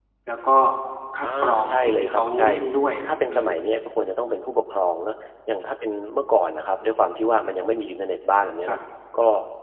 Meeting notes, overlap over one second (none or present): present